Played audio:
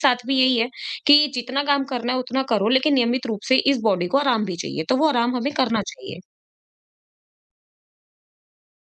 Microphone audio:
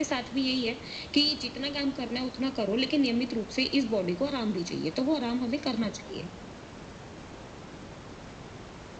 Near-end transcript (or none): none